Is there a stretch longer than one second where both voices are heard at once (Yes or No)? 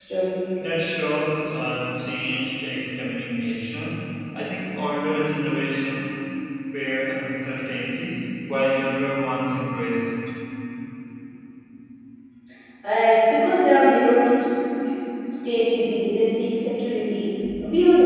No